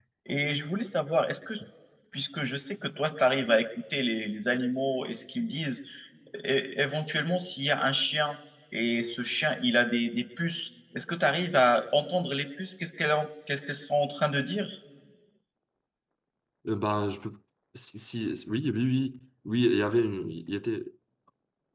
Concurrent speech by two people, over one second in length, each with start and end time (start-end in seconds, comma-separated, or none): none